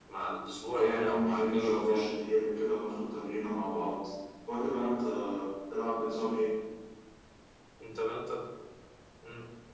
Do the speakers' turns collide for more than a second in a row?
Yes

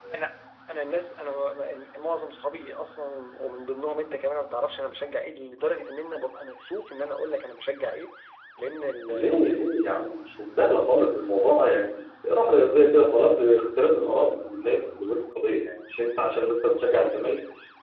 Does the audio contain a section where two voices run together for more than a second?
No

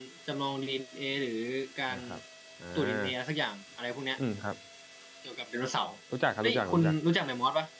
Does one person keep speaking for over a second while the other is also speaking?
No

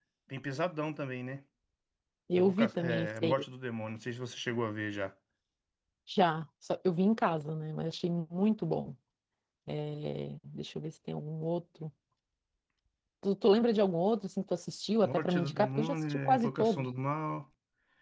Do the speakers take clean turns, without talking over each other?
No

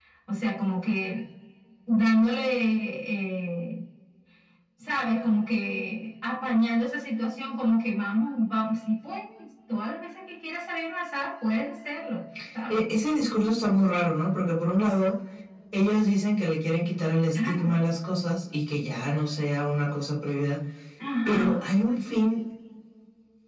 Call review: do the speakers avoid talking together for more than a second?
Yes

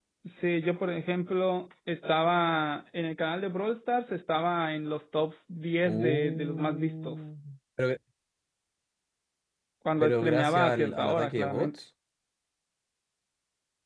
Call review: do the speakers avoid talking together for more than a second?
No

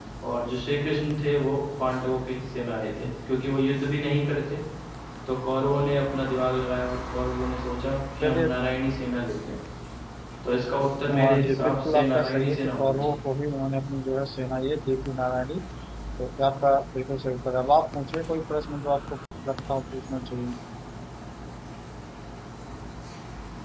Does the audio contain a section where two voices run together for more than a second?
Yes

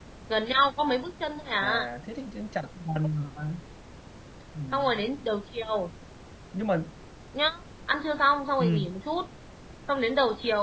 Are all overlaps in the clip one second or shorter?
Yes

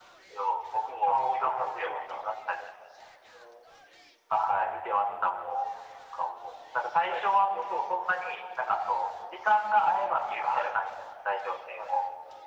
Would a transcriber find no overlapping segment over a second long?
No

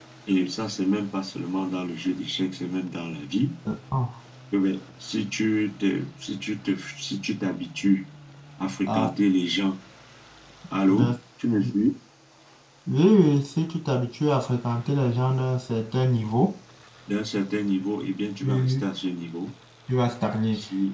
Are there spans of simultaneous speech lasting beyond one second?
No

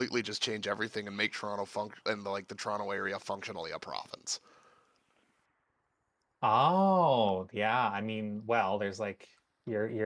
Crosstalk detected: No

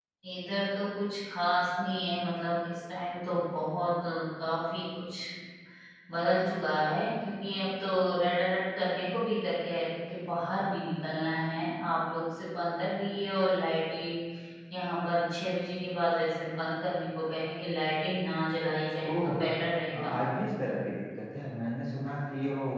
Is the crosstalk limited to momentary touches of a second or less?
Yes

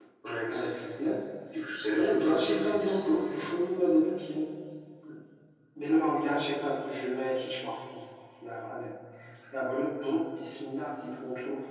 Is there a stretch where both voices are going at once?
Yes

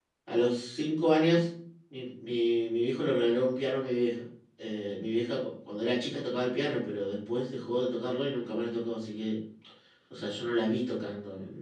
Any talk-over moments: No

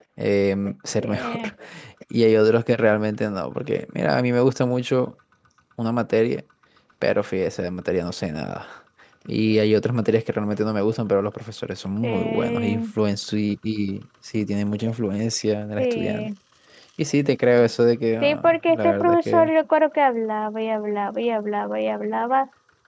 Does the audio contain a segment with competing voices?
Yes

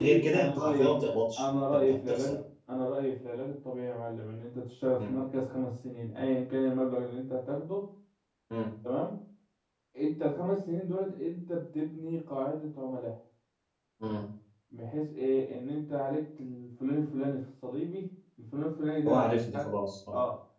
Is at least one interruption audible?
Yes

